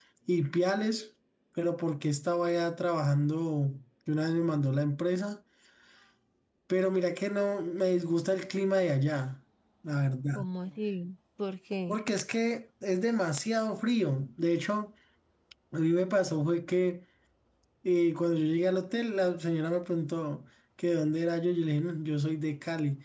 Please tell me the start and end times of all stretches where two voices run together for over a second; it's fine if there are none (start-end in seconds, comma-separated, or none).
none